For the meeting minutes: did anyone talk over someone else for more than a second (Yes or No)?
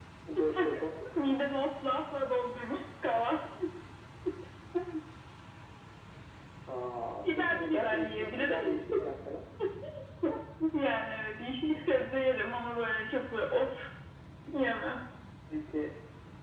Yes